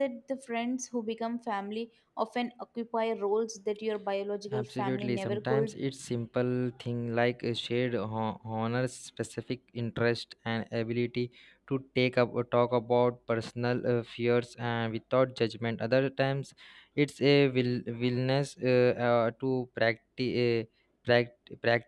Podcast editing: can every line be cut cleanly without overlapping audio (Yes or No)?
No